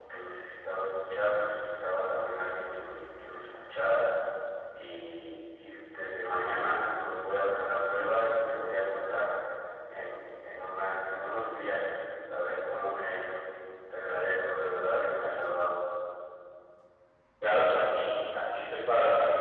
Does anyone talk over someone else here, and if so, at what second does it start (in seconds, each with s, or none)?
none